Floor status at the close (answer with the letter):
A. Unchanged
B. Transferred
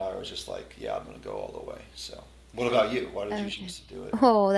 B